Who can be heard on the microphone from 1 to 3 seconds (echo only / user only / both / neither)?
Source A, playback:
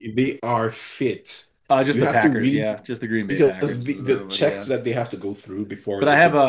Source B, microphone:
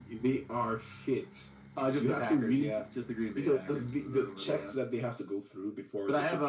echo only